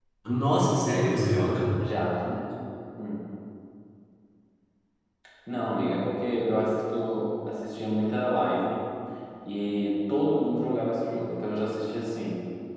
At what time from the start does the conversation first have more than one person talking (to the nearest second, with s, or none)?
none